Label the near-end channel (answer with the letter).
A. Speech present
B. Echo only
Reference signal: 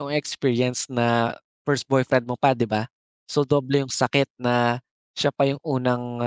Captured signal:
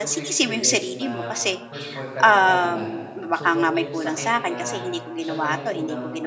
A